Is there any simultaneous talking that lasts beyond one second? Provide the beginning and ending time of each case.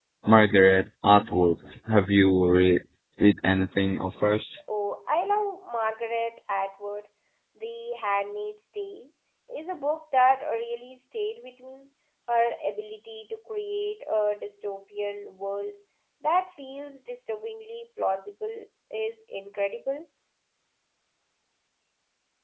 none

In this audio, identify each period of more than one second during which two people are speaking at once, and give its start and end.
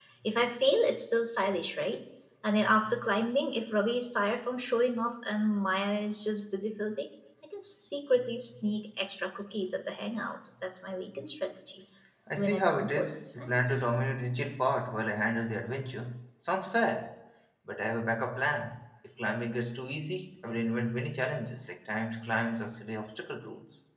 12.4-14.0

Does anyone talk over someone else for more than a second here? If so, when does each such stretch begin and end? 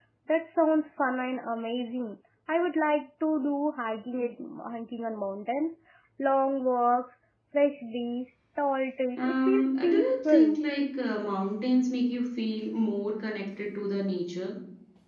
9.2-10.6

